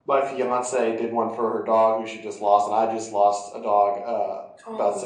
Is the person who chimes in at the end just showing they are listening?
Yes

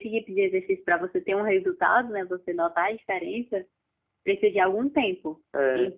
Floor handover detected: No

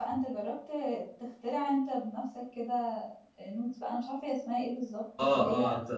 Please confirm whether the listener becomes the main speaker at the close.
Yes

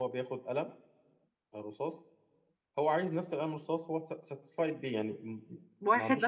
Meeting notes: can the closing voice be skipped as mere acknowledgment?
No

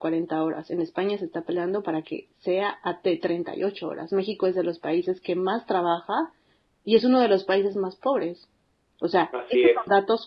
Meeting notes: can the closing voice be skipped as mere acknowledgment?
Yes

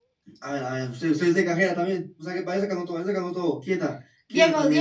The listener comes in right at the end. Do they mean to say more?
Yes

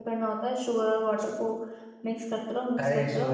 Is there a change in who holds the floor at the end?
Yes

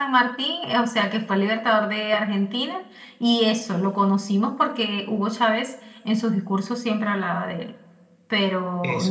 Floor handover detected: Yes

